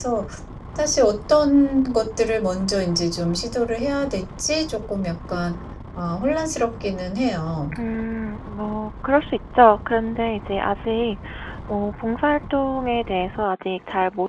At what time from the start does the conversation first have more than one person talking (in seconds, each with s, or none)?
none